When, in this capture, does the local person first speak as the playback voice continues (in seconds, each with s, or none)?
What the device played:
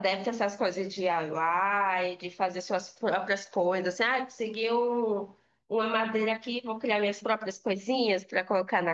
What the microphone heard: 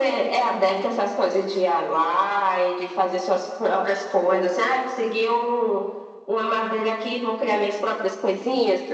none